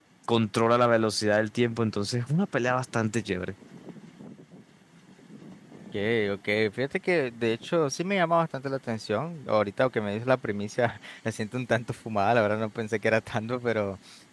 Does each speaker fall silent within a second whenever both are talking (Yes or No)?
Yes